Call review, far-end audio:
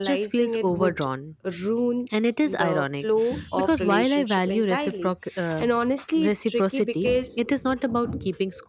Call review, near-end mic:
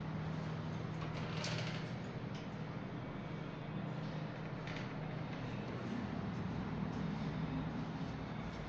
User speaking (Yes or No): No